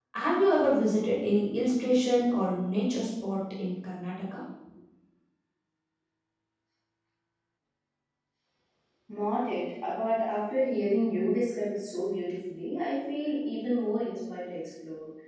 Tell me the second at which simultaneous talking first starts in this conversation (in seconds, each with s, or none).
none